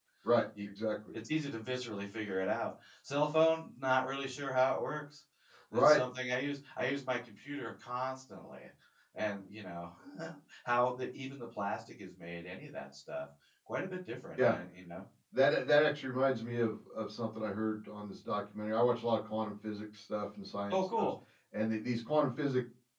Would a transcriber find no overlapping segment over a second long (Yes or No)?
Yes